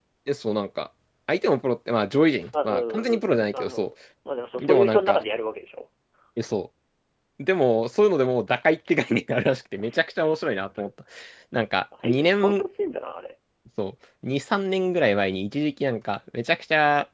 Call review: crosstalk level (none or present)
present